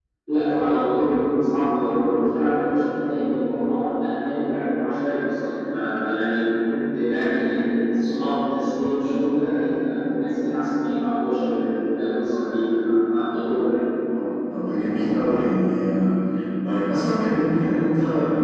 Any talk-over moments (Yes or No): No